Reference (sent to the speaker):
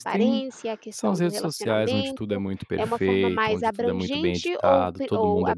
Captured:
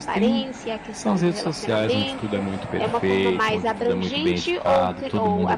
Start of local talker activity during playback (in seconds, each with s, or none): none